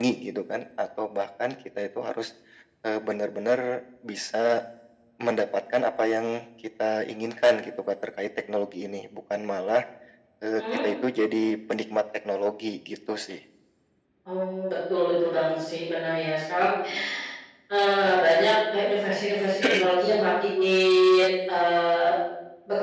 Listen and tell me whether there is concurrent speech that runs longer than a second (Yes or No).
No